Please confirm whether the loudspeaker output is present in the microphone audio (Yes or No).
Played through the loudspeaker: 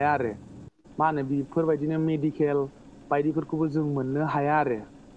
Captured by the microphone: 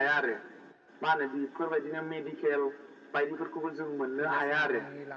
Yes